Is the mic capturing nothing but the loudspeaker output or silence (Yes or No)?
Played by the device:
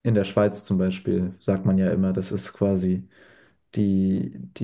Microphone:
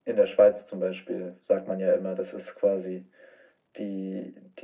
Yes